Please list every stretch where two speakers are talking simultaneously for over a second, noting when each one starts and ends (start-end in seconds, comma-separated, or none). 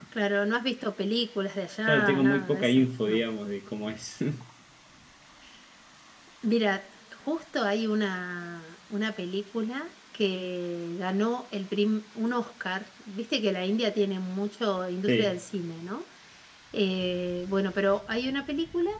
1.9-3.2